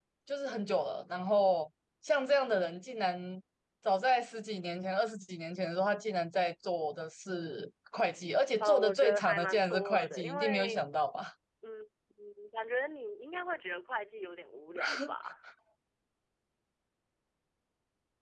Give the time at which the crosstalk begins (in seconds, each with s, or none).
8.6 s